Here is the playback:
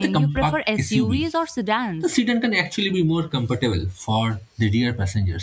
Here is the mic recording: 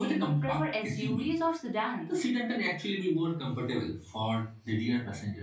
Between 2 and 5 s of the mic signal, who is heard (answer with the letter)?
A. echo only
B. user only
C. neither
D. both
A